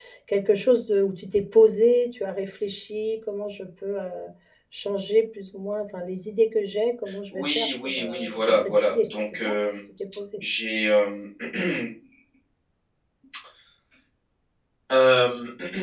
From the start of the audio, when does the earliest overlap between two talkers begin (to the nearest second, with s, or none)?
7 s